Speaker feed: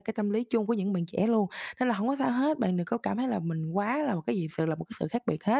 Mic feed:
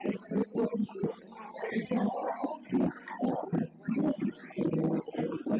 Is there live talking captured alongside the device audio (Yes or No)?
No